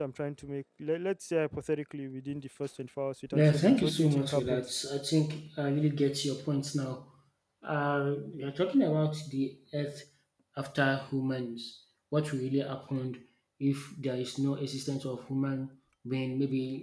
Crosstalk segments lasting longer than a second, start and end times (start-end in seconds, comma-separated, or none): 3.3-4.7